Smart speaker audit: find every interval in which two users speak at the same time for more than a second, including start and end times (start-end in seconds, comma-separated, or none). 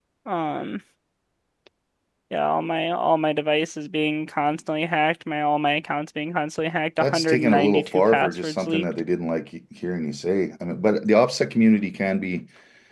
7.0-8.8